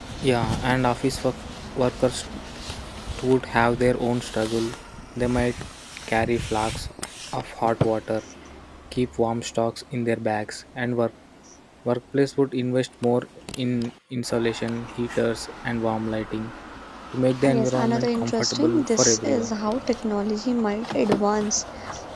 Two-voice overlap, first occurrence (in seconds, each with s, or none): 17.5 s